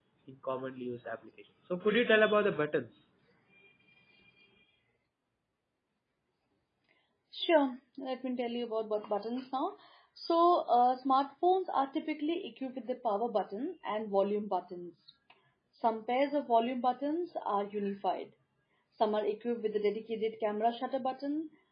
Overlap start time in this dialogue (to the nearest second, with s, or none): none